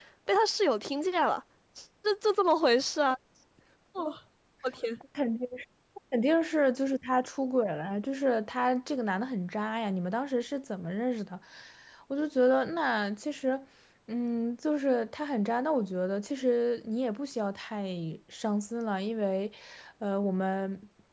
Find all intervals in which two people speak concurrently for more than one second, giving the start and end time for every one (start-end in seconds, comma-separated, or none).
none